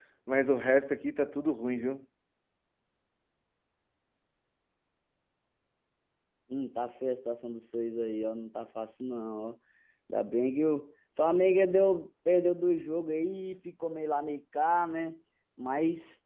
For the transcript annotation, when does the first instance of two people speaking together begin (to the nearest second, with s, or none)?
none